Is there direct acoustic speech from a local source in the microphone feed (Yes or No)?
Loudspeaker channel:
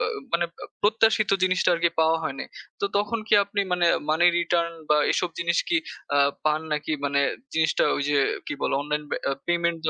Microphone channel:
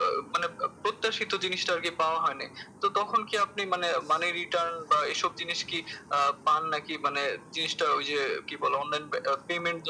No